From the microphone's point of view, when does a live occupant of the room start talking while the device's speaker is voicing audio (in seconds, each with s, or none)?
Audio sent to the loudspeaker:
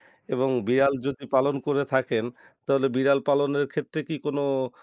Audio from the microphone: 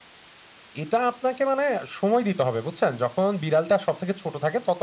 0.8 s